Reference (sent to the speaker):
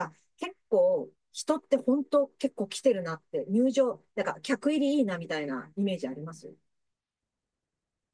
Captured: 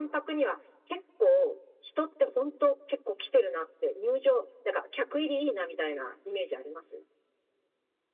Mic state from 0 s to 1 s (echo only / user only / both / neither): echo only